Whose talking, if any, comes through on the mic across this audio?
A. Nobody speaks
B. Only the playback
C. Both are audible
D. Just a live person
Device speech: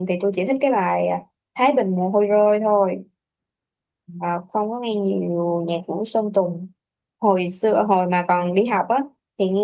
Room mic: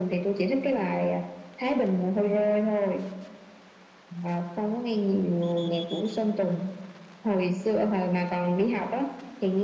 B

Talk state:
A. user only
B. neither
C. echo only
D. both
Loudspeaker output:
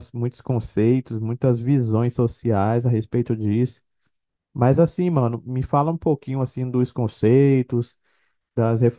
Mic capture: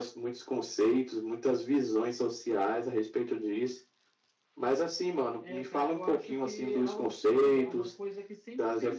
D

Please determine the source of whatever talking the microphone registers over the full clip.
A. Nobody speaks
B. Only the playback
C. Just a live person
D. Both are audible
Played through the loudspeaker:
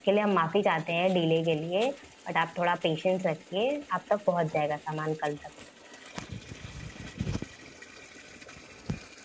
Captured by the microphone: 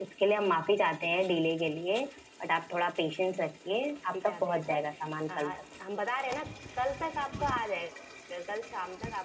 D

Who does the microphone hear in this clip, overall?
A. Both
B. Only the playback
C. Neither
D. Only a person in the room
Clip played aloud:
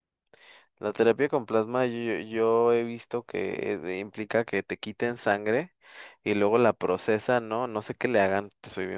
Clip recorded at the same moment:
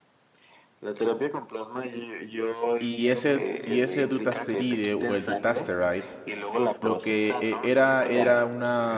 A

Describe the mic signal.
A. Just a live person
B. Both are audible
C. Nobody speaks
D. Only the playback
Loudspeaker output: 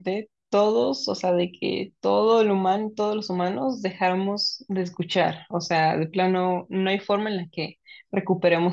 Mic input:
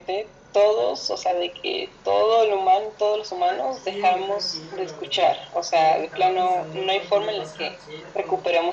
B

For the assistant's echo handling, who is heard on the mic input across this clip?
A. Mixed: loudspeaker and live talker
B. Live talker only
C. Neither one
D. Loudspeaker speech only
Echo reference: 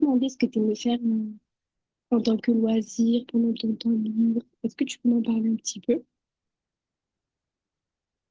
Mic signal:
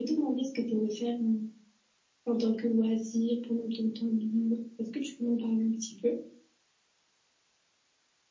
D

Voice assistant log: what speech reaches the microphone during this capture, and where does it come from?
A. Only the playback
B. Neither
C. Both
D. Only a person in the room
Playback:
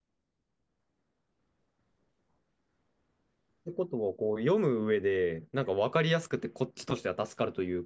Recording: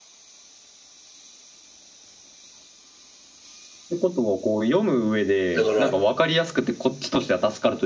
C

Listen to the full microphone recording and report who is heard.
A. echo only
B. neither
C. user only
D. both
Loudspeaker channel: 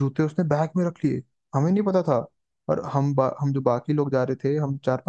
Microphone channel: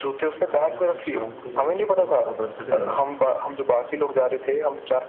D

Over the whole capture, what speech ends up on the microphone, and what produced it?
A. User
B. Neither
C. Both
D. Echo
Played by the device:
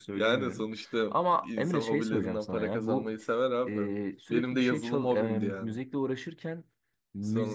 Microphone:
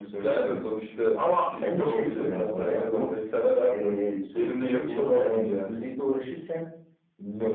D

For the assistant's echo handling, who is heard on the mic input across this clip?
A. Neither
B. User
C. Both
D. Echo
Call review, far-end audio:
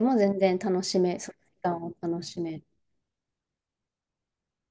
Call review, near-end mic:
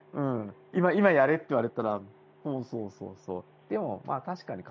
B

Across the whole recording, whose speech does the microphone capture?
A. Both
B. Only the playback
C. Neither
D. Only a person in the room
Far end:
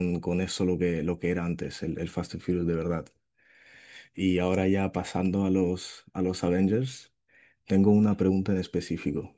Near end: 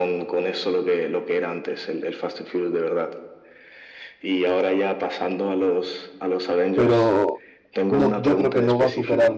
A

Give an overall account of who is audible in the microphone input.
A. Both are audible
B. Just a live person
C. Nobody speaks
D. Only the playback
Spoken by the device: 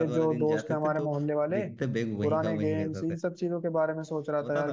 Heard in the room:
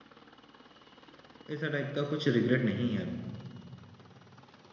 B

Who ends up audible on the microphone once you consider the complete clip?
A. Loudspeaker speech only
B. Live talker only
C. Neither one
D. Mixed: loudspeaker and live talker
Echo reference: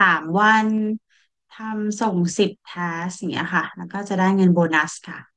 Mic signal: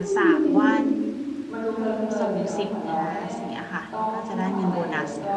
D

